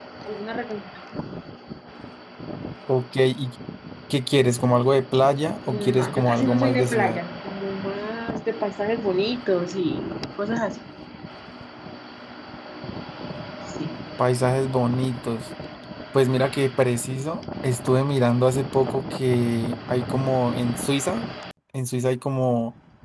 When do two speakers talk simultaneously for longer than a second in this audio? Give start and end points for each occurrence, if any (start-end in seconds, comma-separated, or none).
5.7-7.2